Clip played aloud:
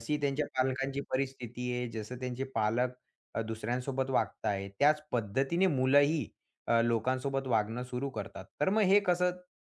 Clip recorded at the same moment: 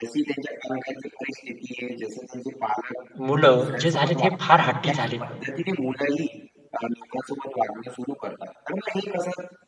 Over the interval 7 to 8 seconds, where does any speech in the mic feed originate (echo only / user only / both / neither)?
echo only